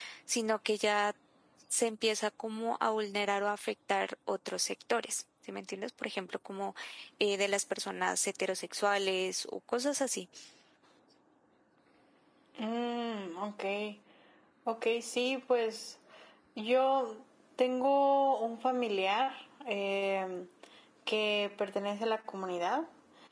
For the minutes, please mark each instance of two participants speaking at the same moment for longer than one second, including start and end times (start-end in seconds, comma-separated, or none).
none